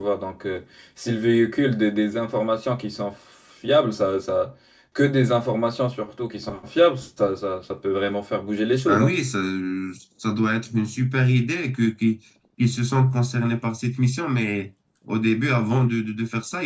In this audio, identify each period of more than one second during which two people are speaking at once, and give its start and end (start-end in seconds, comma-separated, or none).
none